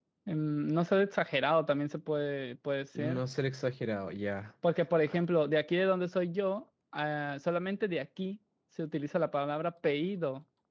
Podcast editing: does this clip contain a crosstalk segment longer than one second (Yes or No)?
No